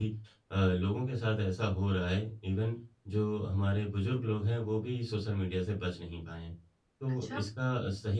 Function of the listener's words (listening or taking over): listening